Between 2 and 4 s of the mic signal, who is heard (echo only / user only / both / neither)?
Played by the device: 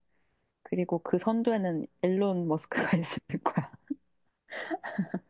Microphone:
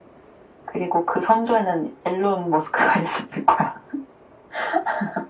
echo only